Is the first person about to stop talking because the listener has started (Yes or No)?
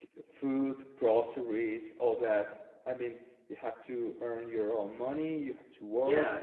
Yes